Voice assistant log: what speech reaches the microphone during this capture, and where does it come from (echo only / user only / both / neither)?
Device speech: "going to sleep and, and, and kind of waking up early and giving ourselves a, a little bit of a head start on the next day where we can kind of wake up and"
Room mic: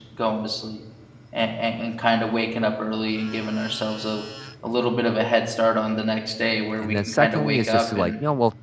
both